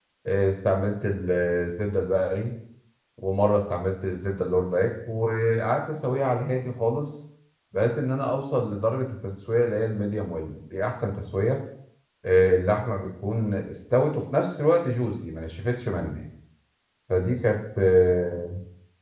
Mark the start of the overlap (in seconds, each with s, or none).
none